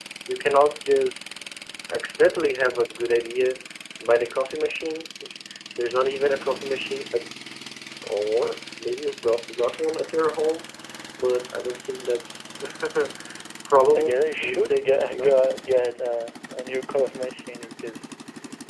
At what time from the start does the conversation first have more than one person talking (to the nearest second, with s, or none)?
14 s